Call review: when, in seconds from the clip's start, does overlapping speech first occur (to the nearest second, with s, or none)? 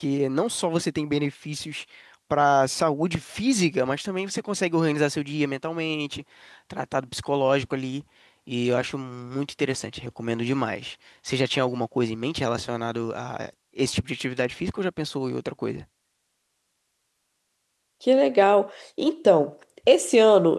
none